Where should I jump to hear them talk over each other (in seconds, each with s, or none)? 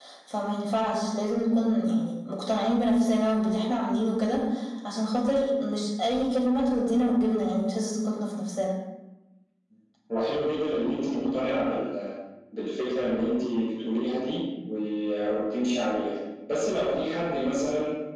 none